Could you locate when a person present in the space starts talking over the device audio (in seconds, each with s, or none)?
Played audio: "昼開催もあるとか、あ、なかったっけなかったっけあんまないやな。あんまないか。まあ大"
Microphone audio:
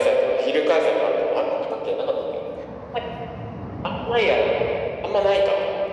none